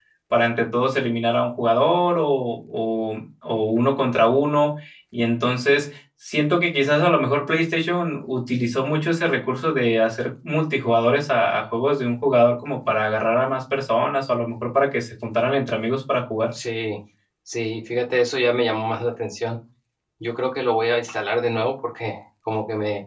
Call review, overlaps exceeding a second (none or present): none